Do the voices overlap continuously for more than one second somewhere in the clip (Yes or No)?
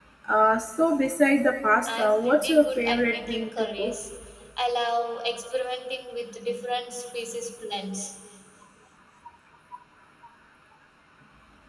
Yes